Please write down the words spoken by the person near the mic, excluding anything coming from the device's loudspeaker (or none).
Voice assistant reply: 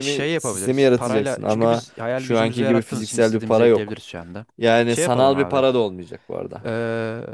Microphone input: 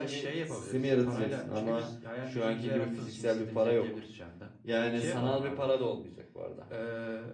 none